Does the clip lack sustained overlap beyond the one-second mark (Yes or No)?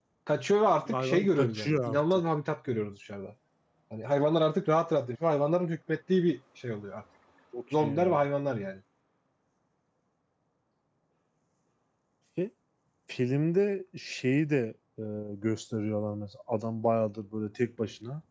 No